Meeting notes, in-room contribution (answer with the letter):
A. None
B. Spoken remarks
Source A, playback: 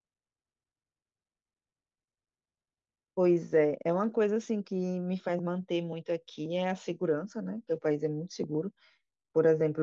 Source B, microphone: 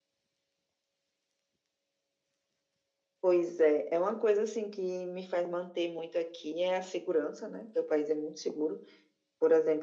A